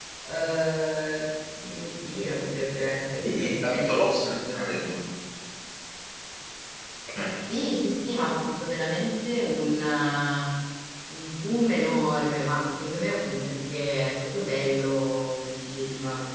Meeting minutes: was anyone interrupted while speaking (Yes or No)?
Yes